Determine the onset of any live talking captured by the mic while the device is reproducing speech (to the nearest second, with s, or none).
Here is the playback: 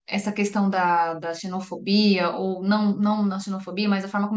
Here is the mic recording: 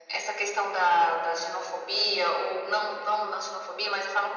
none